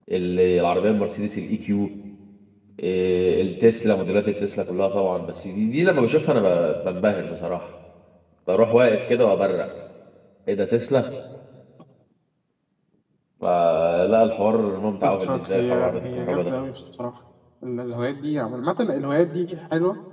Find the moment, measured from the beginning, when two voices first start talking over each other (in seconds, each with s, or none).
15.0 s